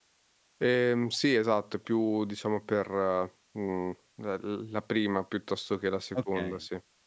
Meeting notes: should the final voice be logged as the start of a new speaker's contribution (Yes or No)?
Yes